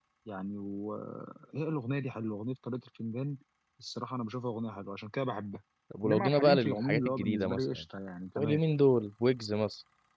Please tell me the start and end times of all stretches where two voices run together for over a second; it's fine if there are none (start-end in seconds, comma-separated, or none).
6.0-7.8